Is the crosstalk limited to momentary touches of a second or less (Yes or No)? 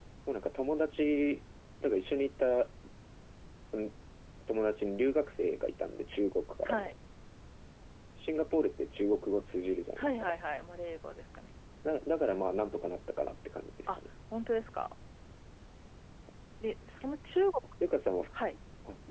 Yes